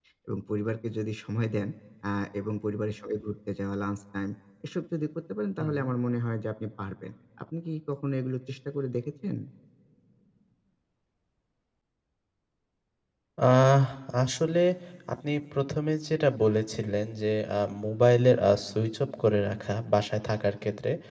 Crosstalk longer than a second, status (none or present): none